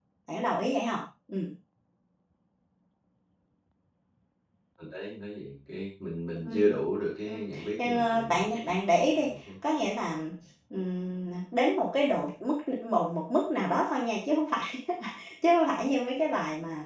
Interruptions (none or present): present